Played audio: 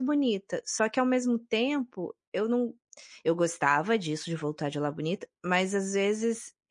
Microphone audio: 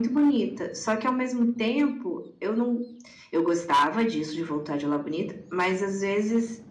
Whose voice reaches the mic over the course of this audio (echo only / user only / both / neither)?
echo only